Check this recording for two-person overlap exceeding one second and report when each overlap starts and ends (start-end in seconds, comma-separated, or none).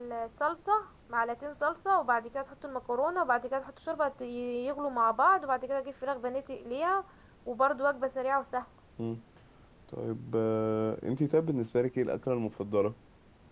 none